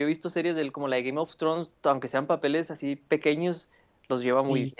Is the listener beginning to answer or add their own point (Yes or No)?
Yes